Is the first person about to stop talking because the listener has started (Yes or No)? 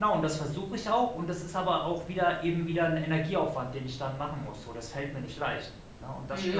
Yes